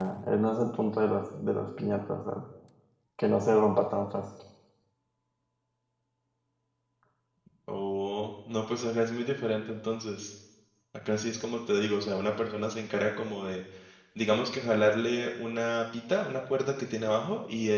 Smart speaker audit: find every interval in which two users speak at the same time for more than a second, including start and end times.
none

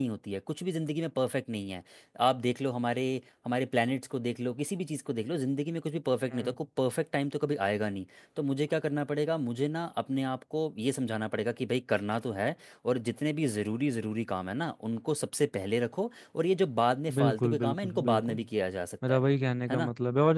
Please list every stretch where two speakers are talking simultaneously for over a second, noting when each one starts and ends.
17.1-18.4

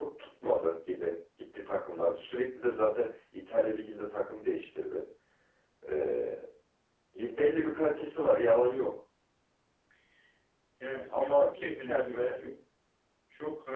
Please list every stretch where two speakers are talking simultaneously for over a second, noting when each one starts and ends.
11.1-12.4

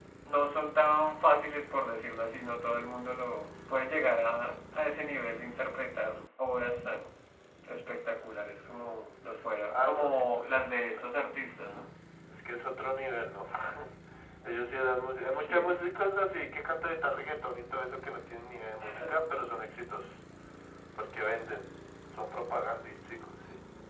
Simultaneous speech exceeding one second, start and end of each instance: 9.7-11.1

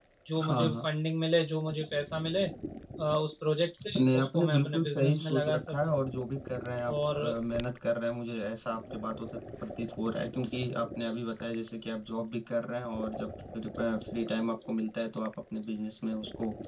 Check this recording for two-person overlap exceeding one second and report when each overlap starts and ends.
4.0-5.9

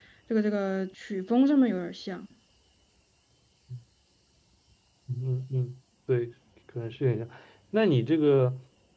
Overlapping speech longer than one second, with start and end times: none

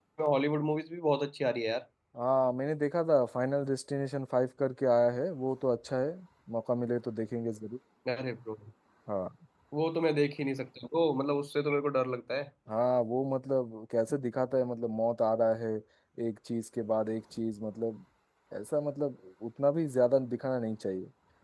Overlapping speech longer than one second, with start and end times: none

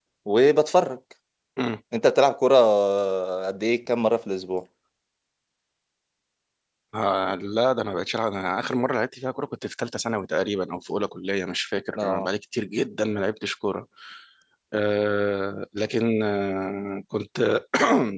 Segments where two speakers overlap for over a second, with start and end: none

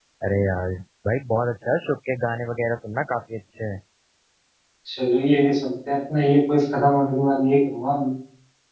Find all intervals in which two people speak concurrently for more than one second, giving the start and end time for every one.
none

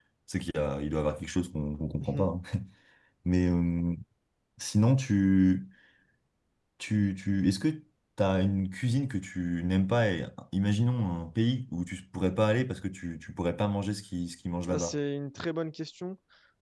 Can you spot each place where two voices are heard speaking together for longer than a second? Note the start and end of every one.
none

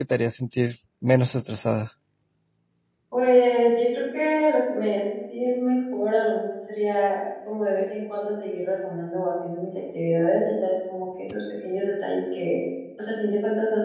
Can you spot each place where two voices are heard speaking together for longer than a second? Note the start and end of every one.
none

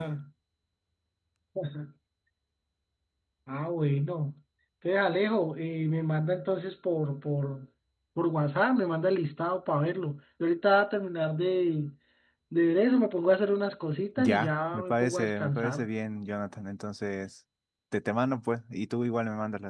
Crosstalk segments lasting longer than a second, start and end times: 14.2-15.9

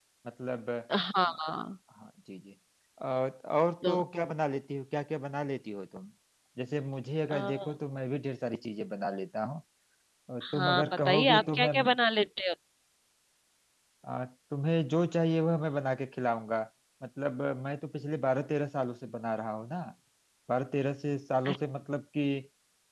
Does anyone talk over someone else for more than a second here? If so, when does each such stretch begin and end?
10.4-11.7

